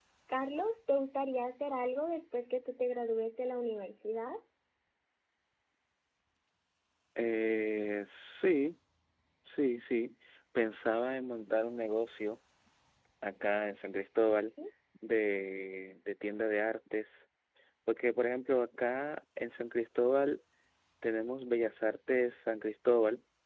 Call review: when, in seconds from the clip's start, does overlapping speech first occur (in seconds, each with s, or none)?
none